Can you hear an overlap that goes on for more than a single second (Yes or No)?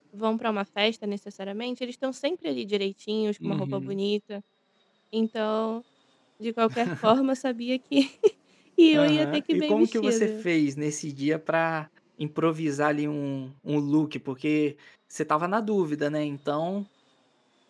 Yes